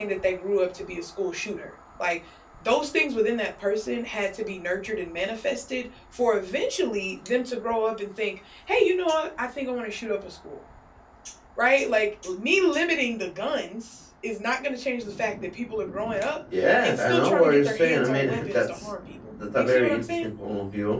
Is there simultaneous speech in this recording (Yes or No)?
Yes